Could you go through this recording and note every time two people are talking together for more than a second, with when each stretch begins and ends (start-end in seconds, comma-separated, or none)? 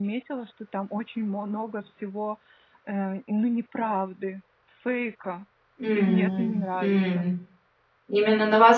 5.9-7.2